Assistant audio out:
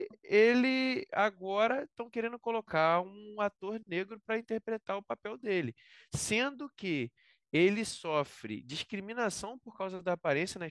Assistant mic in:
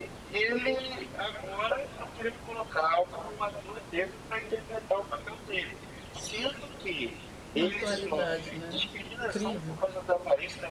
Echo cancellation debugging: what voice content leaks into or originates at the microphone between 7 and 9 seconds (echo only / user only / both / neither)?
both